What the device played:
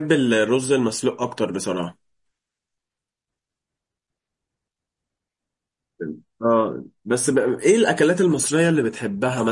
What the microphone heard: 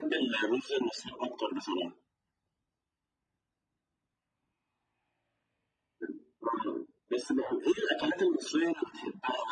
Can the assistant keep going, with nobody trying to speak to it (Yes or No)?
Yes